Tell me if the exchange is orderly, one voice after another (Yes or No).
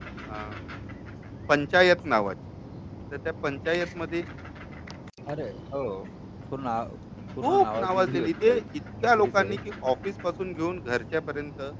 No